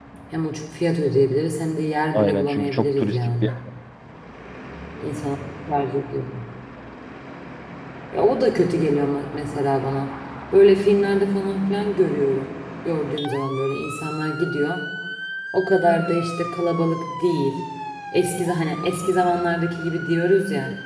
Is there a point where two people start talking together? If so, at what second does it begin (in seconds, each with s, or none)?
2.1 s